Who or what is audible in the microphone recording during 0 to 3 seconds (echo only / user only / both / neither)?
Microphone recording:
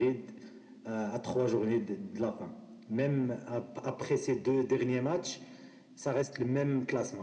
echo only